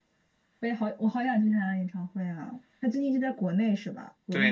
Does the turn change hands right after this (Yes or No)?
Yes